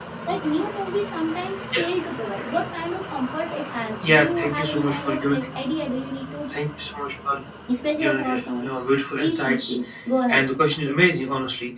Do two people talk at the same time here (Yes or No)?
Yes